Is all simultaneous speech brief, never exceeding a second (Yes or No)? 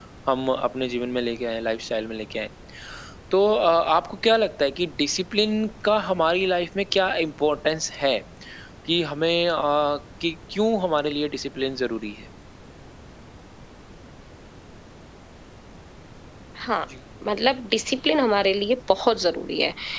Yes